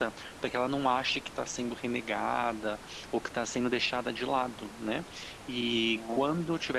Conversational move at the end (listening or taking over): listening